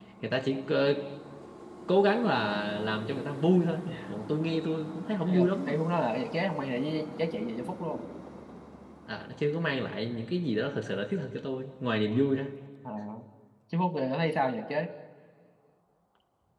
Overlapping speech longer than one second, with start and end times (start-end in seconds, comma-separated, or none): none